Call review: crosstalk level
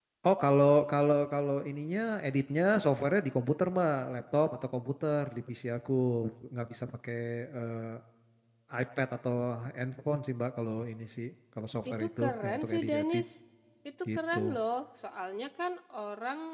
present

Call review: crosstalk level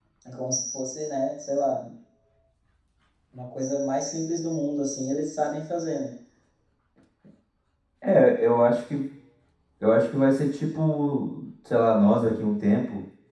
none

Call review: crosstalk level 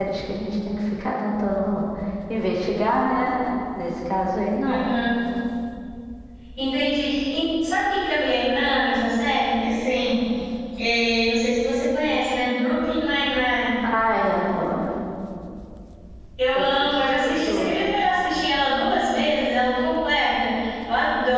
present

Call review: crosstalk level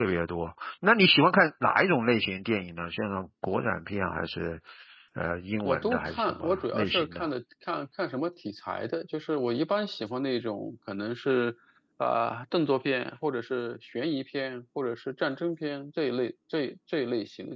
present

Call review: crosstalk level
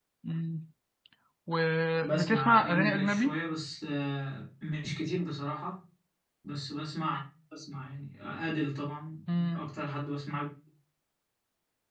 present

